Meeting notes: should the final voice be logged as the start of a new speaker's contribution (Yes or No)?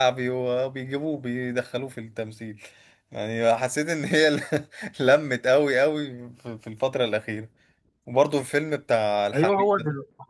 Yes